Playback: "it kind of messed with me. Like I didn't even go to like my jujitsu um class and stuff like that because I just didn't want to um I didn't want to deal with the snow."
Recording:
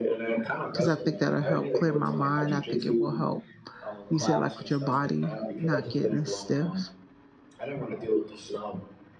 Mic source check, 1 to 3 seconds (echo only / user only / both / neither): both